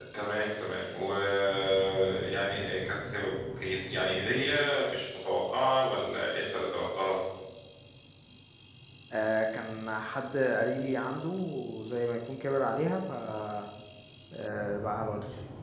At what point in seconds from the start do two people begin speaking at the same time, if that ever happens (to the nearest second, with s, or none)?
none